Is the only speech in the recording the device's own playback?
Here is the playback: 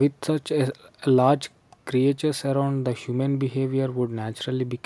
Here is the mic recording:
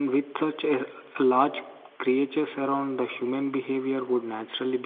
Yes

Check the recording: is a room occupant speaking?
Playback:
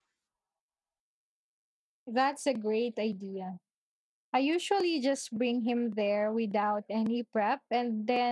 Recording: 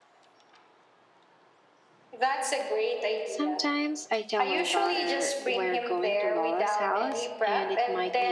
Yes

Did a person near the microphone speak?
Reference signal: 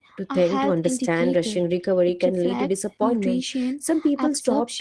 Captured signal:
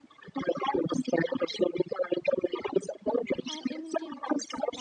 Yes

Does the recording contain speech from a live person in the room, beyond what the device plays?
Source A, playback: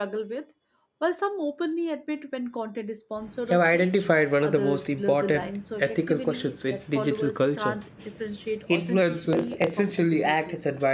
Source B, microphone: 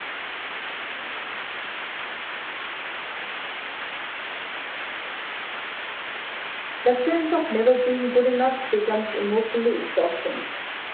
Yes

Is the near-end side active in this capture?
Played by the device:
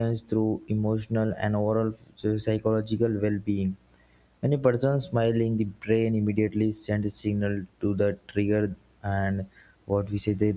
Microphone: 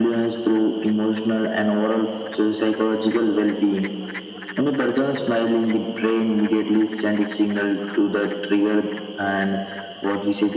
No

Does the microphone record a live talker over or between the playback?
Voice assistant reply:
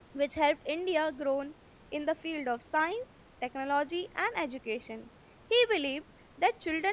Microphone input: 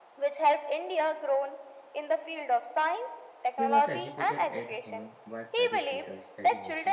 Yes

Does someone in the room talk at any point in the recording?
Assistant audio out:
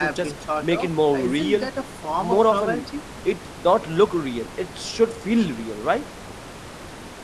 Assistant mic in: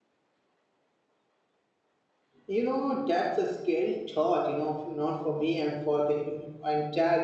Yes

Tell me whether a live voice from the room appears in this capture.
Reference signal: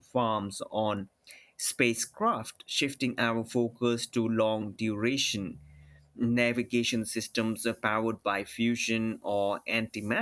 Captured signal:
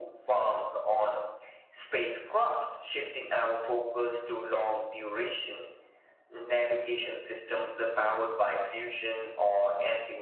No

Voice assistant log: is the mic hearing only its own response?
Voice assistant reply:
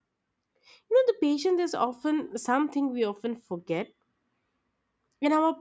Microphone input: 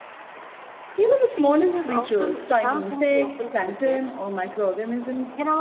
No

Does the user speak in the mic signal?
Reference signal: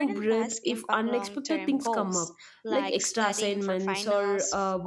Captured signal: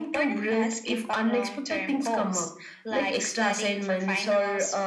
No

